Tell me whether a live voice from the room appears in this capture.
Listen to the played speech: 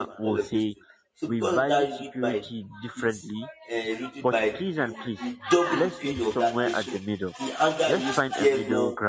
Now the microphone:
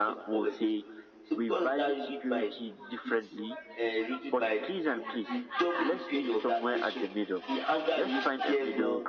No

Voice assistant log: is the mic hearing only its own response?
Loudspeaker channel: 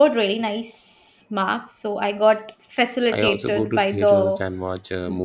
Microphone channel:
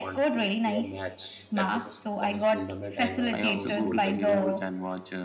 No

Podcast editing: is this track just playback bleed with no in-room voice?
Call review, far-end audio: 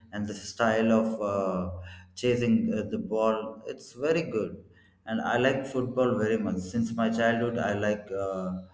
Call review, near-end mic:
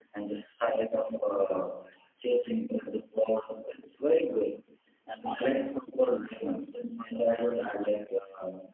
Yes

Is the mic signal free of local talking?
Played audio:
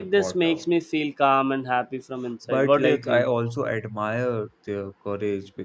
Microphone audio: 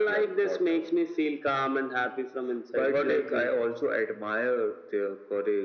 Yes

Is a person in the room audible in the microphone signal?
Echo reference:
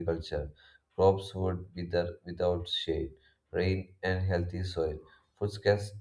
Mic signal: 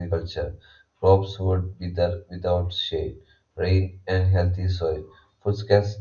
No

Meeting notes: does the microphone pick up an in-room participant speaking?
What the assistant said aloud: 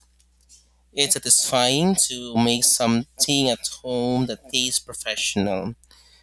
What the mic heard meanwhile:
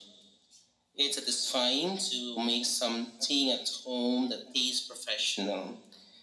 No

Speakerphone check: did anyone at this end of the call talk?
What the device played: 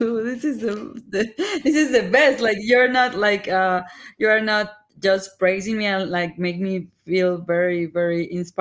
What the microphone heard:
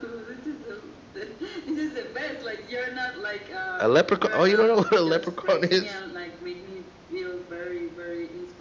Yes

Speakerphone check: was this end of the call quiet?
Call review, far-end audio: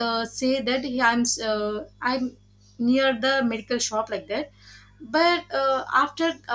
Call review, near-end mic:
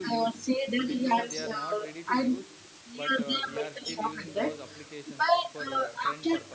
No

